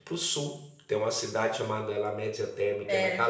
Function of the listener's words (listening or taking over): listening